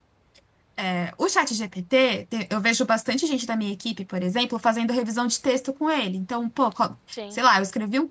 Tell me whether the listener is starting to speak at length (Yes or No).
No